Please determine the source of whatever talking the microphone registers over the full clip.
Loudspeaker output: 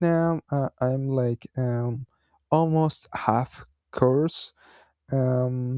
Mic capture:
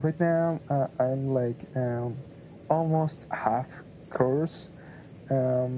echo only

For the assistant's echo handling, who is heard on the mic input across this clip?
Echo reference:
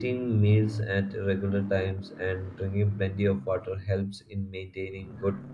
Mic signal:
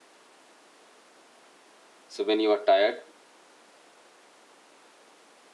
user only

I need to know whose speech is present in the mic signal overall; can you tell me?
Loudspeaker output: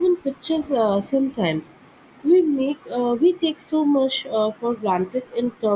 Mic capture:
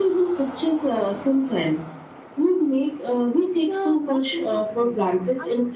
both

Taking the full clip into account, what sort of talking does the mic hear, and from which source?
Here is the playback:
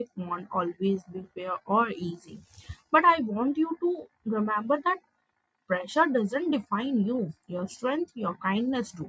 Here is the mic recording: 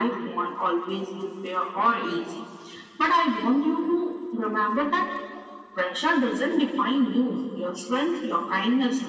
echo only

